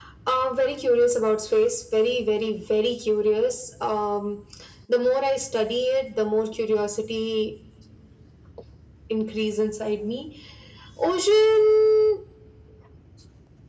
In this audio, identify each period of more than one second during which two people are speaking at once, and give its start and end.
none

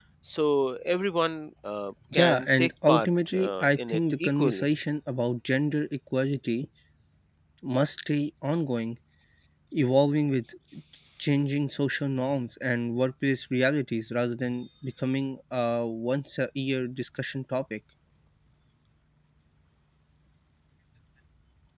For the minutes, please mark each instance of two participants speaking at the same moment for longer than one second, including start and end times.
2.1-4.7

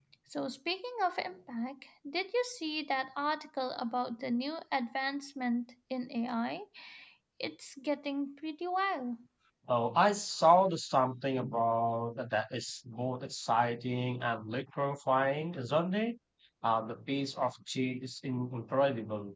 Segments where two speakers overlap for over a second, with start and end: none

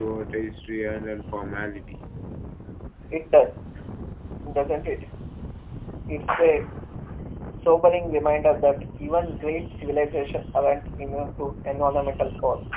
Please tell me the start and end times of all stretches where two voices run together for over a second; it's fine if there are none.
none

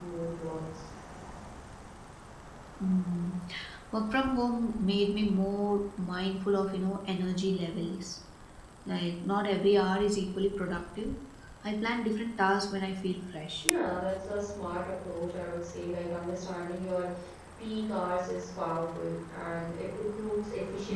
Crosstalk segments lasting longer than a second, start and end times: none

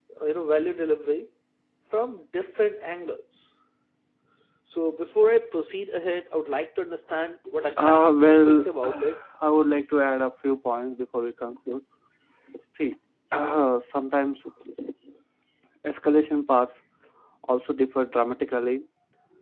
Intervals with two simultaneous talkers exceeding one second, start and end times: 7.8-9.2

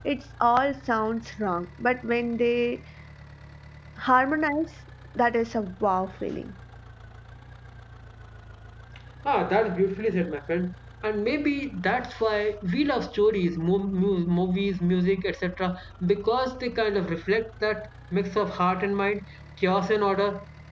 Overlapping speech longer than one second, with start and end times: none

